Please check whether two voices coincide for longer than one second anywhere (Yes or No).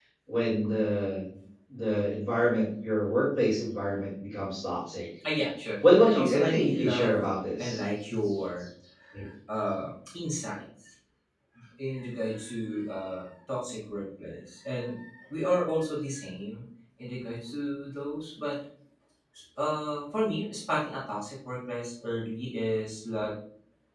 Yes